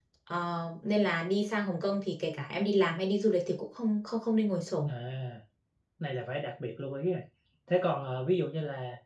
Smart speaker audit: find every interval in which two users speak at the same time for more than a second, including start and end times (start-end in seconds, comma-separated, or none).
none